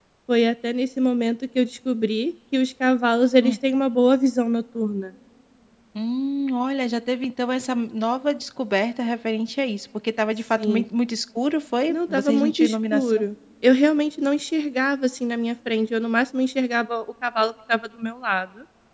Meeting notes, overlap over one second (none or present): present